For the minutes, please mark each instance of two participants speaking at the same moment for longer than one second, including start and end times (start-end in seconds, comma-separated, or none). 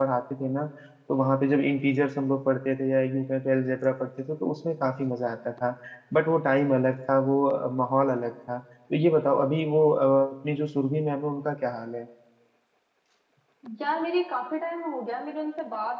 none